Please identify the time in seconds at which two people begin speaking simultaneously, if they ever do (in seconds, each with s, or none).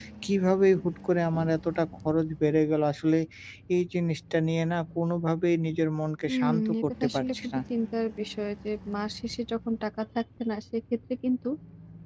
6.3 s